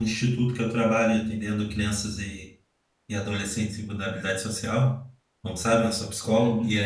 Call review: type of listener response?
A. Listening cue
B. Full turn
A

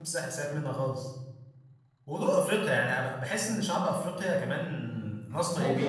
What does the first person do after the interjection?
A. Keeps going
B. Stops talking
B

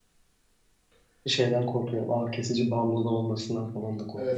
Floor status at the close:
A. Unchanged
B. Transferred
B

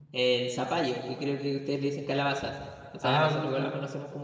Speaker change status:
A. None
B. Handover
A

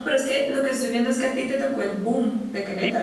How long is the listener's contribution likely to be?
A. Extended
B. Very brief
A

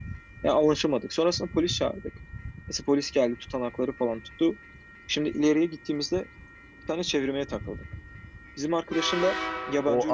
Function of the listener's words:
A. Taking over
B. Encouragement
A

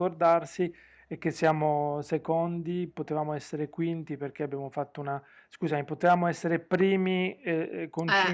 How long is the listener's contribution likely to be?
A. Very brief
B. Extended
A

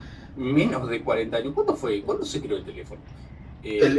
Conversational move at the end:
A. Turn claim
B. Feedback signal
A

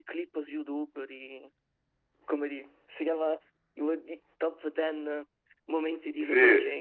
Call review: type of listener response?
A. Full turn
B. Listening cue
A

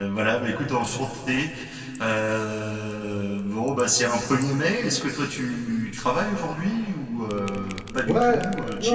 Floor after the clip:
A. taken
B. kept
A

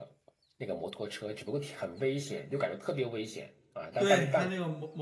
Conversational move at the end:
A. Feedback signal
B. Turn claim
B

